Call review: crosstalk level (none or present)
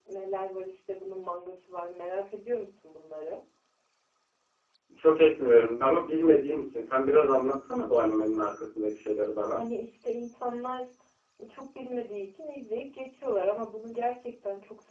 none